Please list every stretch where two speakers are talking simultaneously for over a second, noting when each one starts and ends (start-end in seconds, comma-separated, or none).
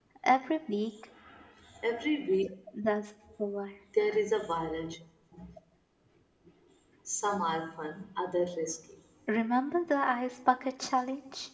none